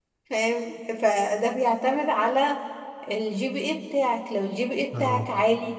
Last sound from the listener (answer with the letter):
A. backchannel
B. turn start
A